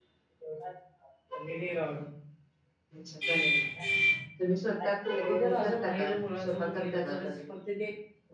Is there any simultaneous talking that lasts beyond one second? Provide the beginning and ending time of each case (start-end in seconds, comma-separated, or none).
5.1-7.3